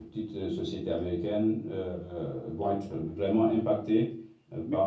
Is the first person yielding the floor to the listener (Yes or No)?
Yes